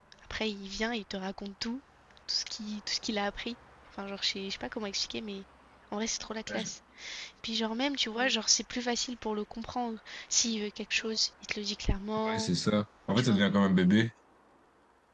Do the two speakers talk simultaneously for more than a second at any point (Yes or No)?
No